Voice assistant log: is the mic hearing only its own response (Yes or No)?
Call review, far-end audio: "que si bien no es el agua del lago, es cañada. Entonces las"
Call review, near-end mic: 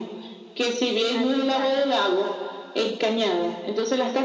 No